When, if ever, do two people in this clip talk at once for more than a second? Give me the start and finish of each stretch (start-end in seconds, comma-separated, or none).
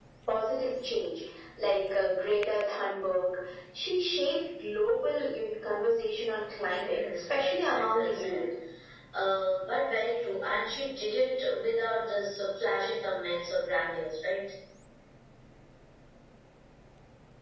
6.7-8.4